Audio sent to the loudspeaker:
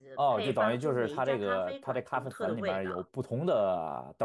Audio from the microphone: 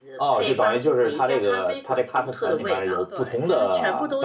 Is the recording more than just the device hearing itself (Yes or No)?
Yes